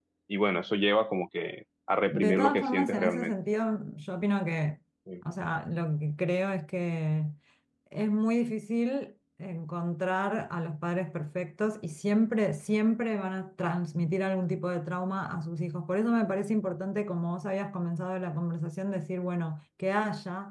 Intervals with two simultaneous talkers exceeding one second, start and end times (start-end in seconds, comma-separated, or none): 2.1-3.3